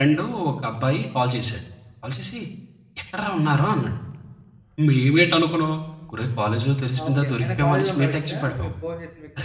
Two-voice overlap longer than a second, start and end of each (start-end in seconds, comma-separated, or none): 7.0-8.7